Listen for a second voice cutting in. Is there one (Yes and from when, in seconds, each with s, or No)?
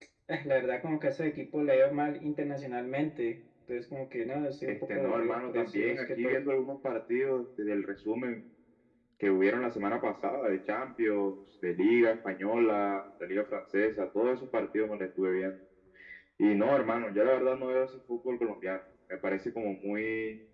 Yes, from 4.6 s